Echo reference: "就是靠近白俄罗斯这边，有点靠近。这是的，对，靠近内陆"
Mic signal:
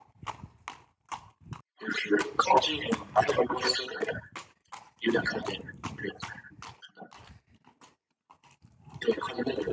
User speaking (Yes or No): No